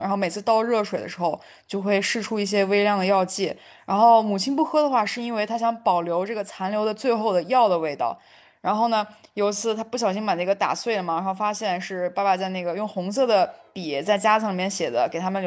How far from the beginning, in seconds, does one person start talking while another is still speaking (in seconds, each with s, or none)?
none